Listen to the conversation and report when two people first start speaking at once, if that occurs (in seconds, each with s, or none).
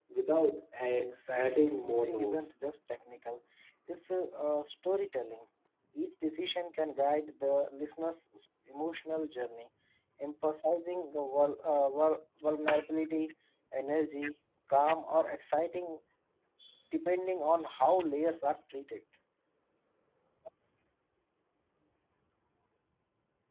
1.0 s